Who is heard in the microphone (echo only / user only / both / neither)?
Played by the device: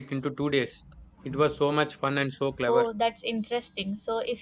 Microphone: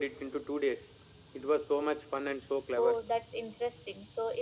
echo only